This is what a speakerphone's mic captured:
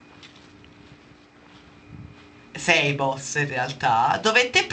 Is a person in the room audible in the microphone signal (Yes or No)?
Yes